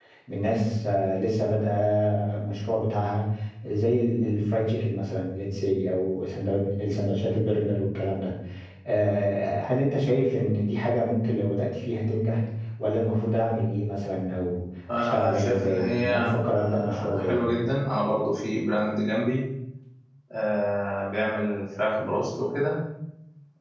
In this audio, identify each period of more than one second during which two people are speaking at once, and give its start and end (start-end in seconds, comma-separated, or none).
14.9-17.4